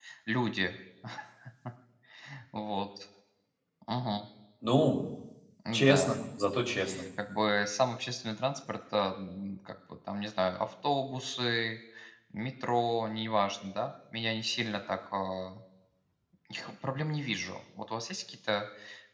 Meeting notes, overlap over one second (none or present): none